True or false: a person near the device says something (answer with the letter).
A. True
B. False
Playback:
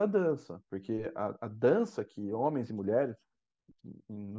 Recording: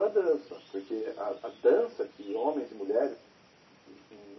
B